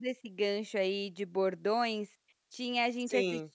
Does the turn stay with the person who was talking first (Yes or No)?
Yes